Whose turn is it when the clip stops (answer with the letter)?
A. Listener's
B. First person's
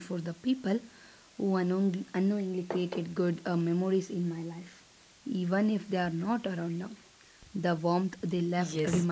A